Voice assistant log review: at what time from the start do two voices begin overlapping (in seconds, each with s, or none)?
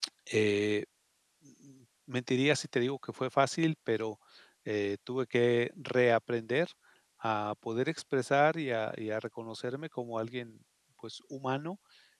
none